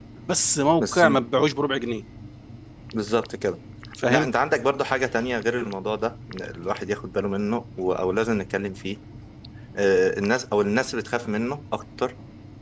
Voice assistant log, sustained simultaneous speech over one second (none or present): none